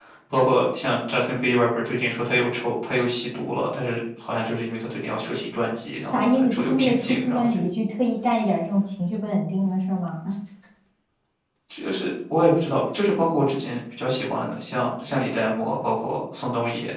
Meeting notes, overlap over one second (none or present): present